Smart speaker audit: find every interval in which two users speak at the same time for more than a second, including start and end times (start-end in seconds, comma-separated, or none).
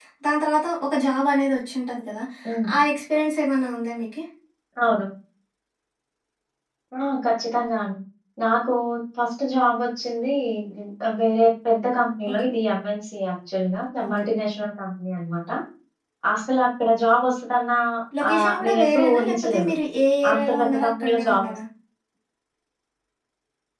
18.3-19.7, 20.3-21.5